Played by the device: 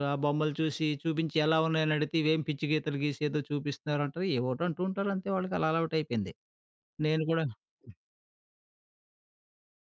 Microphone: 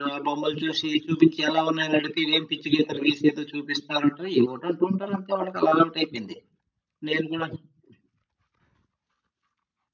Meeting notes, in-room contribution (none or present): none